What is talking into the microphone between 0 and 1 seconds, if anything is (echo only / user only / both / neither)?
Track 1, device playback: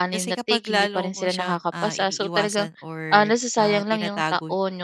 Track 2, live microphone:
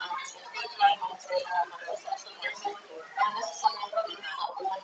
echo only